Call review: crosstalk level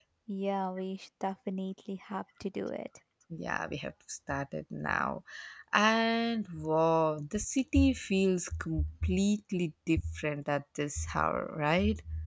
none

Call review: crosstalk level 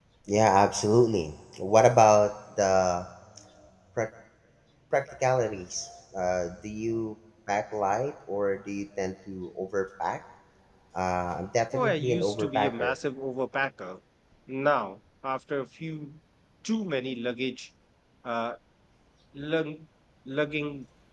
present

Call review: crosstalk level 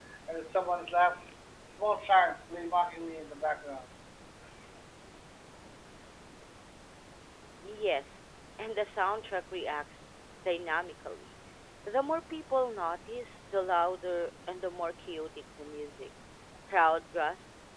none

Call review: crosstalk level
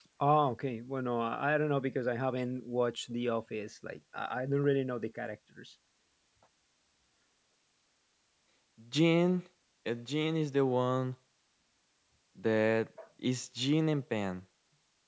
none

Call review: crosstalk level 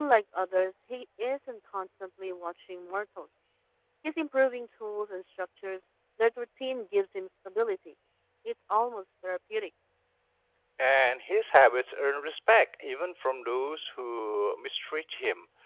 none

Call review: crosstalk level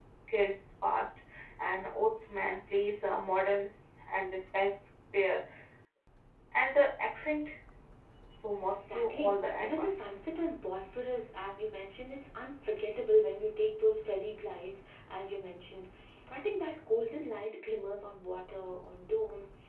present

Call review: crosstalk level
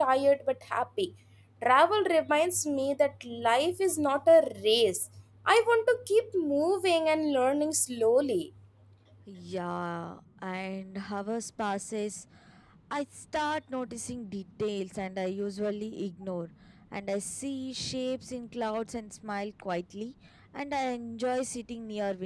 none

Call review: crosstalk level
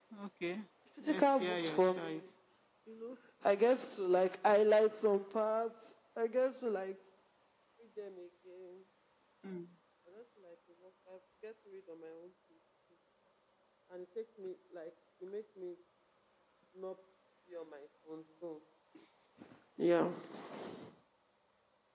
present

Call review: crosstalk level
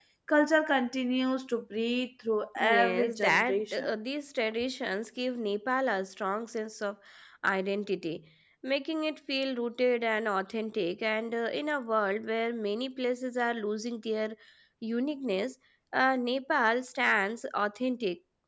present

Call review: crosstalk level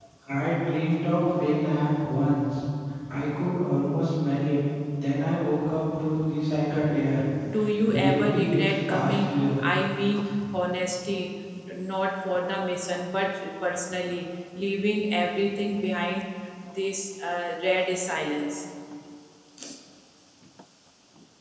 present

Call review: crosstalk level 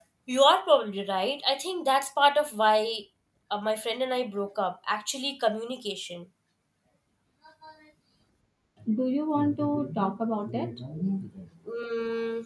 none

